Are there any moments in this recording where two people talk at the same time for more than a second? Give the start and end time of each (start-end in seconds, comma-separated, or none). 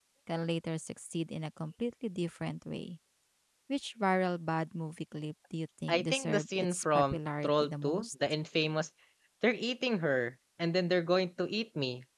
5.9-8.1